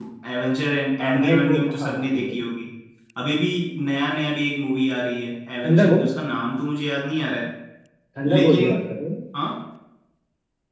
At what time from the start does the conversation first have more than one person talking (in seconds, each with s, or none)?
1.0 s